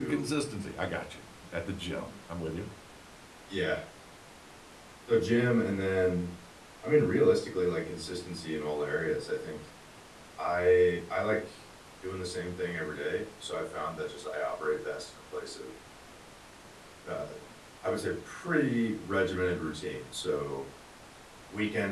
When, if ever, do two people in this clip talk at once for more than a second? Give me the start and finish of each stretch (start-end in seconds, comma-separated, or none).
none